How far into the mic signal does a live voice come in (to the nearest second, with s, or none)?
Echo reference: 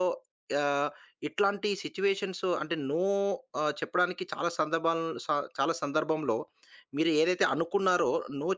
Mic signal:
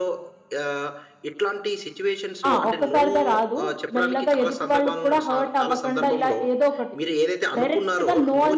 2 s